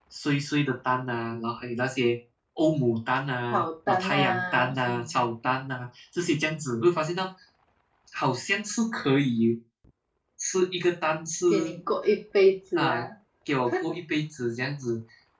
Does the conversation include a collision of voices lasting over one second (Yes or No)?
Yes